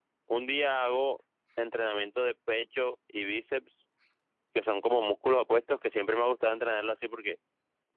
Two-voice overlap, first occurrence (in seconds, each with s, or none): none